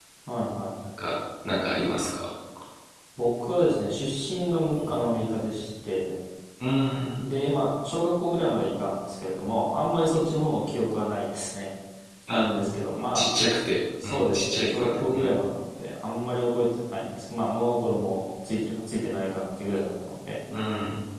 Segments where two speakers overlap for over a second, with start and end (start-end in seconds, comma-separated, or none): 14.0-15.3